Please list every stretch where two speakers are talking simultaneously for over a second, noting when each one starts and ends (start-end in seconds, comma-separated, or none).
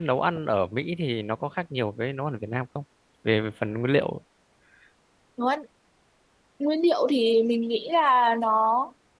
none